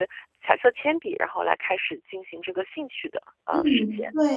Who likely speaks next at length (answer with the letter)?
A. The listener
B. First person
A